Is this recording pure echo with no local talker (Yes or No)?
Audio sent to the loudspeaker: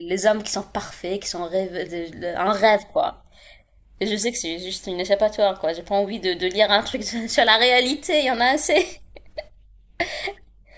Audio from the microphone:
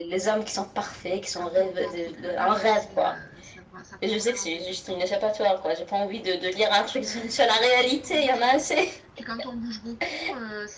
No